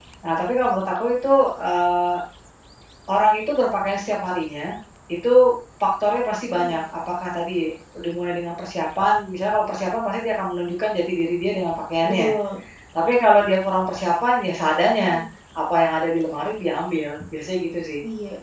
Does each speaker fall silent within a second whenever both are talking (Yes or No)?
Yes